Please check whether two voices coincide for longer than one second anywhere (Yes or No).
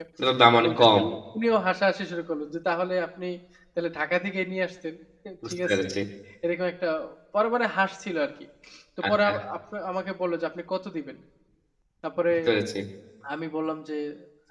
No